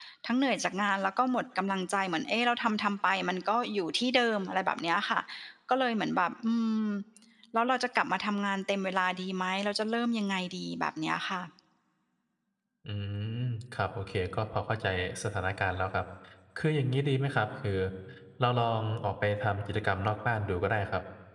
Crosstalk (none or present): none